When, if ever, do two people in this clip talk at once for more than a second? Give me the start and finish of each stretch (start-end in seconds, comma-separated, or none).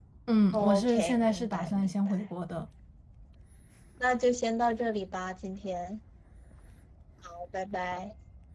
0.5-2.1